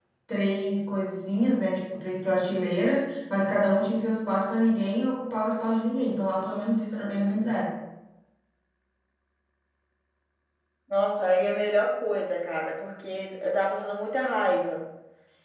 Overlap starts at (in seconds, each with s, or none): none